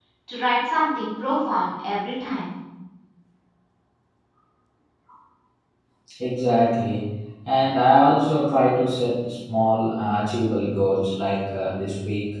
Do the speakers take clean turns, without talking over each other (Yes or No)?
Yes